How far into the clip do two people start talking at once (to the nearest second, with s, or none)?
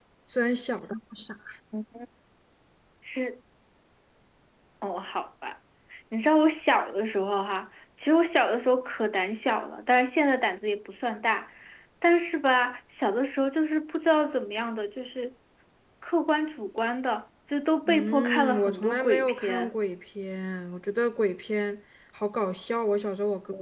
18 s